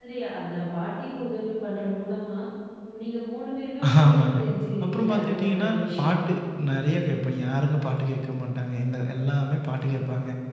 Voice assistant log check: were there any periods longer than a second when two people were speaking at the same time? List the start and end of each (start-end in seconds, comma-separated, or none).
4.8-6.2